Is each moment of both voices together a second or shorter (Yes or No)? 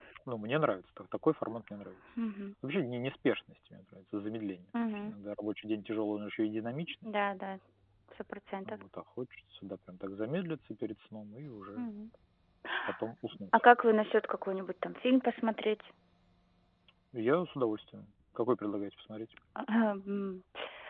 Yes